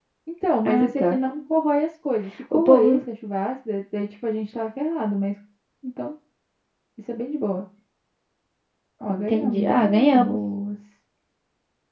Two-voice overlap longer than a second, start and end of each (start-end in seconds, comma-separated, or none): 9.1-10.4